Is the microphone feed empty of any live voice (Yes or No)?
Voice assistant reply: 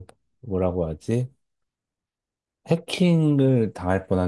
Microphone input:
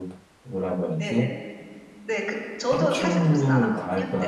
No